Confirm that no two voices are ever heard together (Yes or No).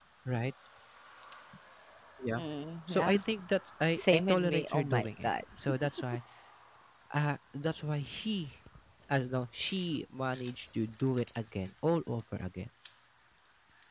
No